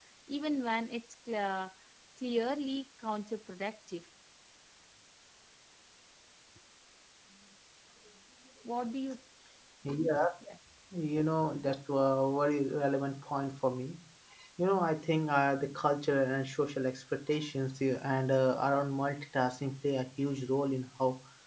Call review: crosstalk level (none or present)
none